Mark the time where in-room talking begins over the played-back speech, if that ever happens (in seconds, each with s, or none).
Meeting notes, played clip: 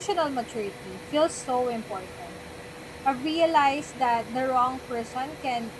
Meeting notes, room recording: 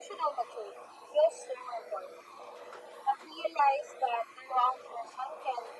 none